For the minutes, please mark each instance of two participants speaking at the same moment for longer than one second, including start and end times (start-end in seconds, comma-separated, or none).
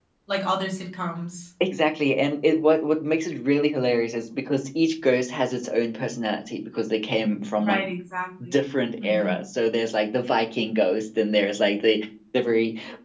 none